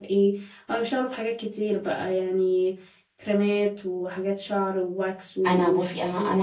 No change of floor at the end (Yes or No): No